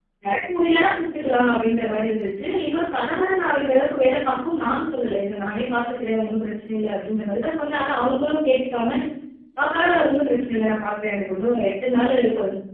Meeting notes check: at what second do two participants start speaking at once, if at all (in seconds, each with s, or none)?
none